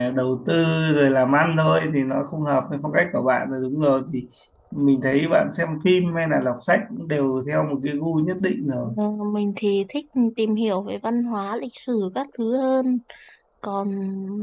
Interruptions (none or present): none